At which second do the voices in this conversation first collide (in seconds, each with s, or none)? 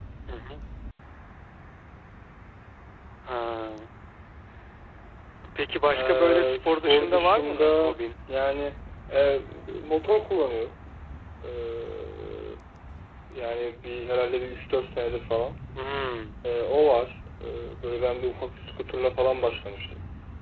5.9 s